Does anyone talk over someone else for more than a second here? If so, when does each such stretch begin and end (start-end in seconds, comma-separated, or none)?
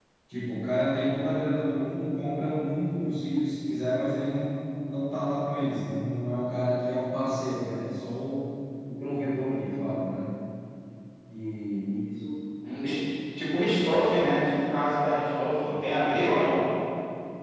none